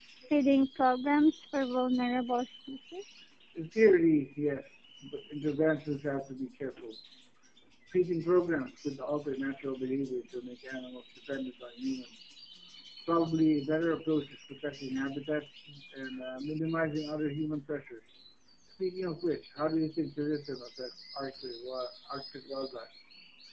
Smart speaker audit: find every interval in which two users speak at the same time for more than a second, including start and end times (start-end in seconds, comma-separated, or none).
none